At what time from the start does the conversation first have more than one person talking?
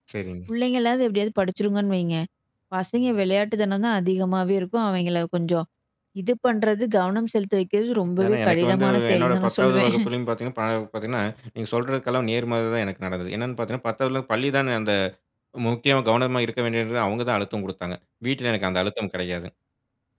8.2 s

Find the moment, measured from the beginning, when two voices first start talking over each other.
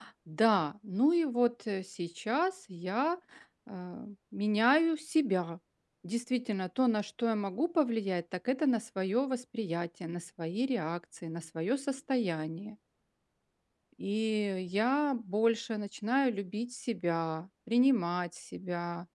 none

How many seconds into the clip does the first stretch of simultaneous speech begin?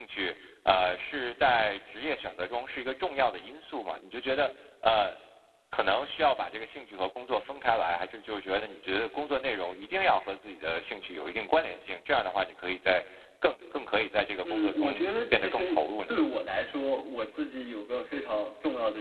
14.4 s

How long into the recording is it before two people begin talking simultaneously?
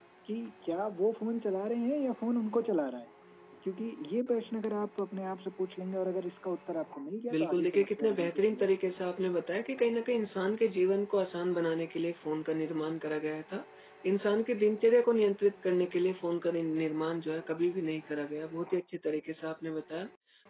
7.3 s

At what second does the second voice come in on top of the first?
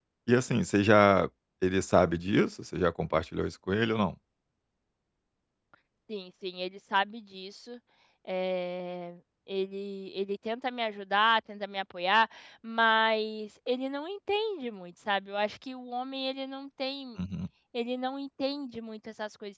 none

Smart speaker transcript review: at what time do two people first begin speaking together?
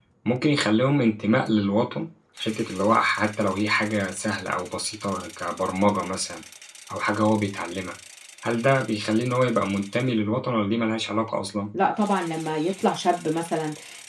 none

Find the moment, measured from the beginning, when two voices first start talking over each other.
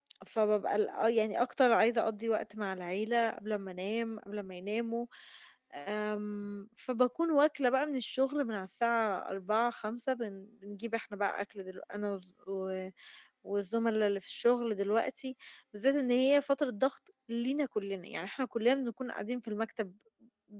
none

